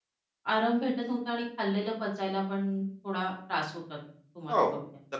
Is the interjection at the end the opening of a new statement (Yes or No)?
Yes